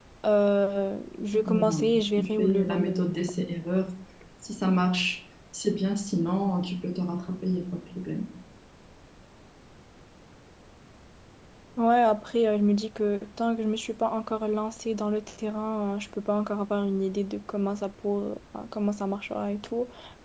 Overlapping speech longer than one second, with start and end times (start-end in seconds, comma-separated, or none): 1.3-3.2